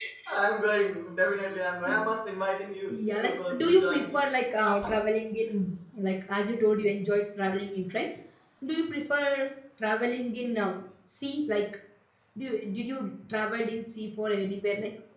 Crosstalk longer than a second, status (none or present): present